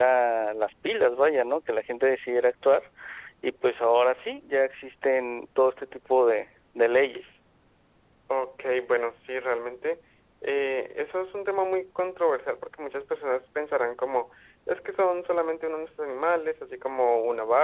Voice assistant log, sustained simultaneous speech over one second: none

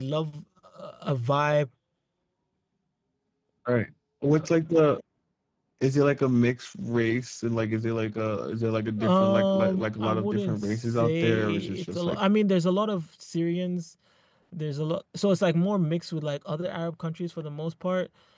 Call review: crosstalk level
present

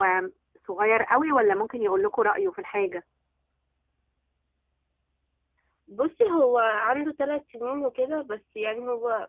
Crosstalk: none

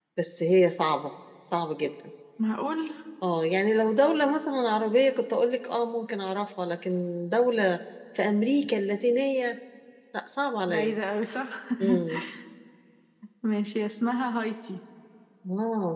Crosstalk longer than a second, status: none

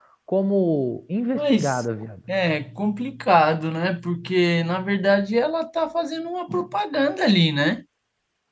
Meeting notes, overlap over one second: none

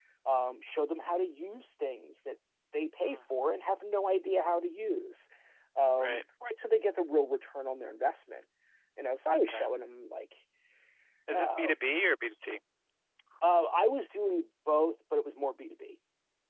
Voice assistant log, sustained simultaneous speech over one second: none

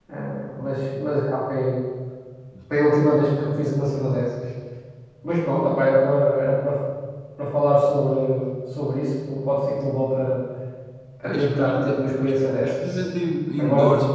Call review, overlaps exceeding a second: present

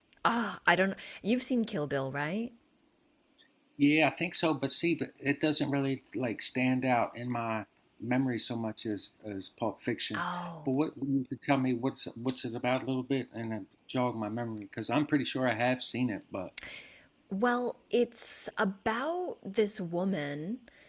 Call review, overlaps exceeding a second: none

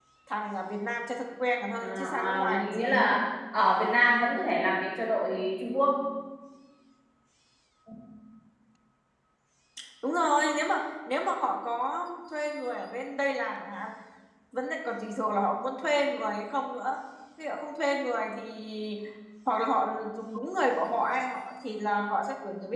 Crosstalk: present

